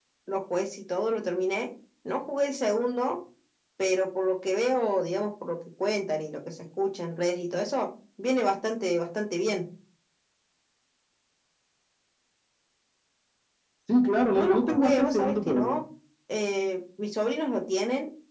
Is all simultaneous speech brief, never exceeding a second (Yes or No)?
No